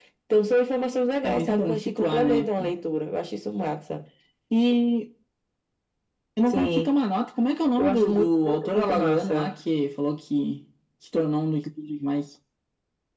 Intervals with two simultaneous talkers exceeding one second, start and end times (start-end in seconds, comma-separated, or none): 1.2-2.5, 7.8-9.5